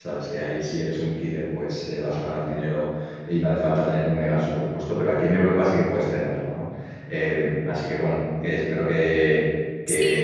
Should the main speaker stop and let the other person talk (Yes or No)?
Yes